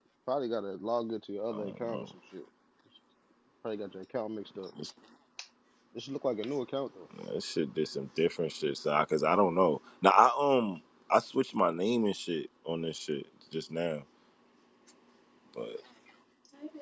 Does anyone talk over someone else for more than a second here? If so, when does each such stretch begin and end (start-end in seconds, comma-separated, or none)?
none